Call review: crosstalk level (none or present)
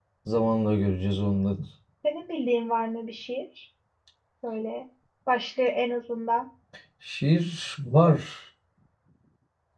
none